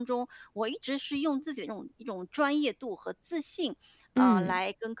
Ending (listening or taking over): listening